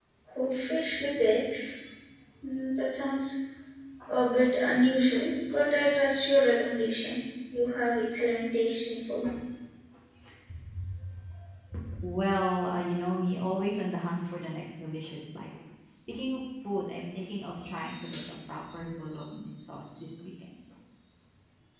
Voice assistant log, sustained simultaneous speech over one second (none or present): none